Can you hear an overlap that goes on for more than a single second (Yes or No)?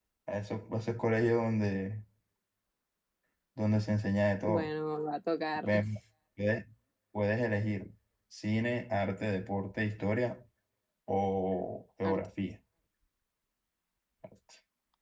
No